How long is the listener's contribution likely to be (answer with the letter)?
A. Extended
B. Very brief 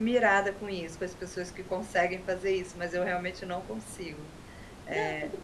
A